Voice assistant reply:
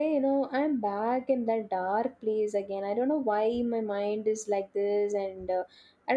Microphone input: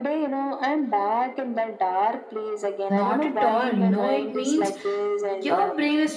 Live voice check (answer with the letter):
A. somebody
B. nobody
A